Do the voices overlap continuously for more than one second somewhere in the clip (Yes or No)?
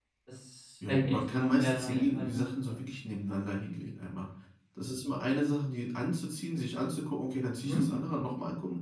Yes